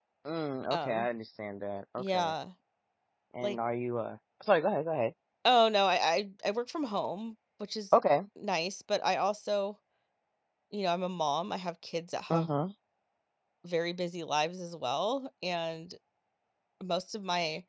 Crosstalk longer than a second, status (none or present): none